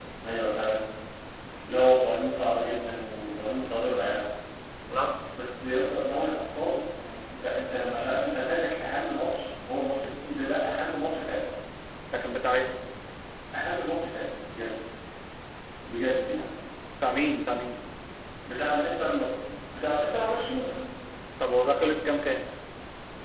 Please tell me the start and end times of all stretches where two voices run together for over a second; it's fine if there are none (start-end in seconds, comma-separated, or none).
none